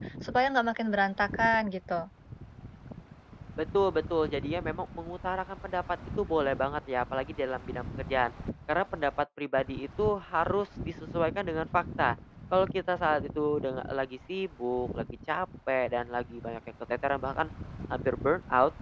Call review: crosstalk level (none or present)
none